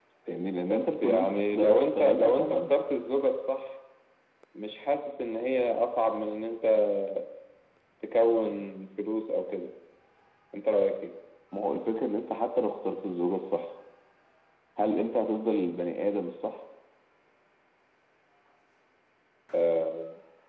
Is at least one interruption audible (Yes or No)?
Yes